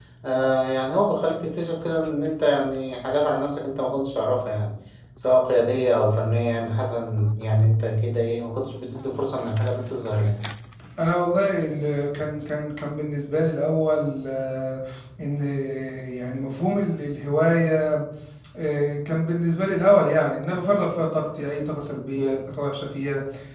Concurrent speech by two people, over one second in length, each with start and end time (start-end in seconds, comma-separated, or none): none